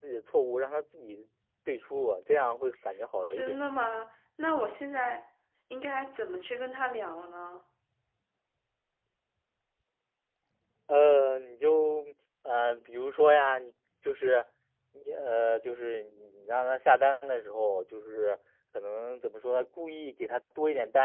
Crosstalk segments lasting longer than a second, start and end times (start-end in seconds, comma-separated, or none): none